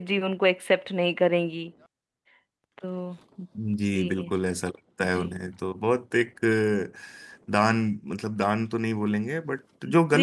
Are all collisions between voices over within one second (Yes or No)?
Yes